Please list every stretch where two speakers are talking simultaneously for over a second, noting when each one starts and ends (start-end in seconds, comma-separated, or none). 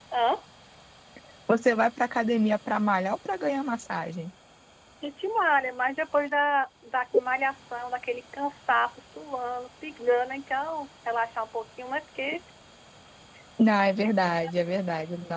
none